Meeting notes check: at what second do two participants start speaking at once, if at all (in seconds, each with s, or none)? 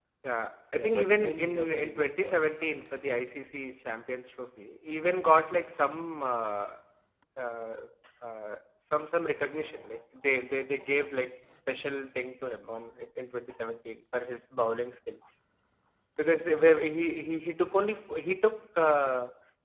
0.7 s